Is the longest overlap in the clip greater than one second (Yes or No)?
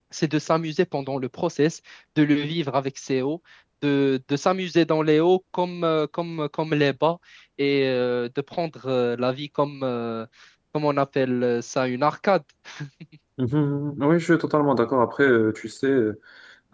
No